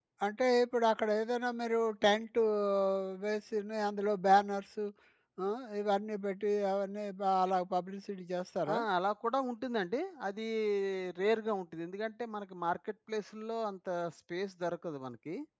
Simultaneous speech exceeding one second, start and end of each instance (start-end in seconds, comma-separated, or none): none